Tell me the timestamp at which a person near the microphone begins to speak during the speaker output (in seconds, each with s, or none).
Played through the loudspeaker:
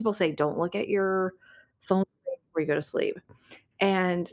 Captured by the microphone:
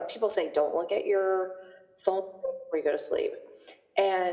none